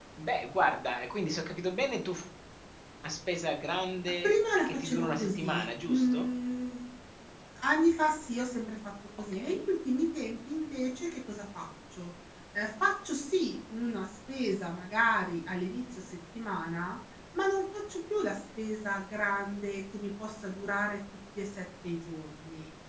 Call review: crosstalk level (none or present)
present